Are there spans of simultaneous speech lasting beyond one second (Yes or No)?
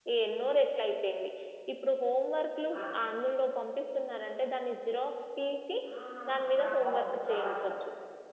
Yes